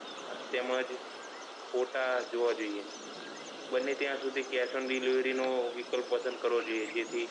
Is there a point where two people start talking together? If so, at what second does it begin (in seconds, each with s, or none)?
none